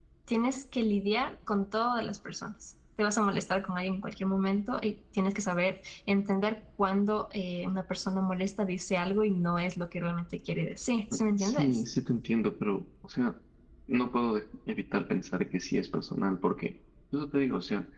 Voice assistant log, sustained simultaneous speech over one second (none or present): none